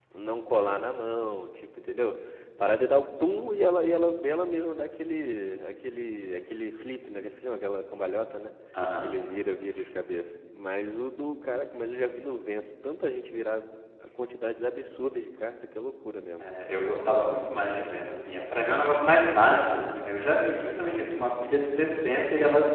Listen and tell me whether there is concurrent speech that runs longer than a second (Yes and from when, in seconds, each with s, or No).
No